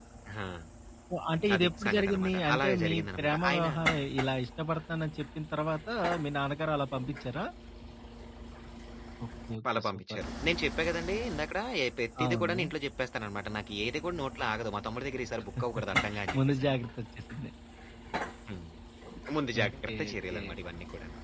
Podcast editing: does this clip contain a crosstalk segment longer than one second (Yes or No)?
Yes